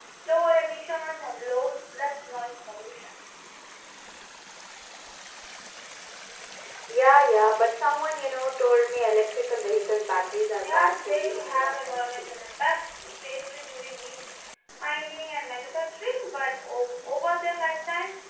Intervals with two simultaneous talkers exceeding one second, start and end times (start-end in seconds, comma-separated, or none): 10.6-12.3